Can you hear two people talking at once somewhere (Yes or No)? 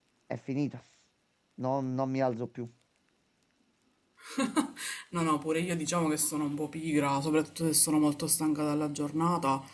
No